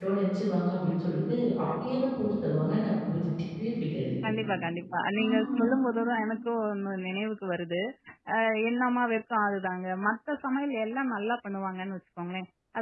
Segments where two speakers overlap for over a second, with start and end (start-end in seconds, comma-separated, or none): none